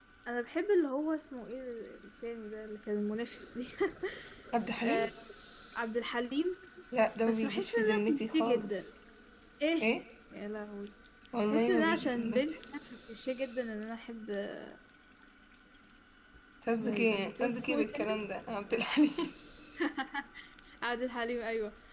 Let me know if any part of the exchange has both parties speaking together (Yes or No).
Yes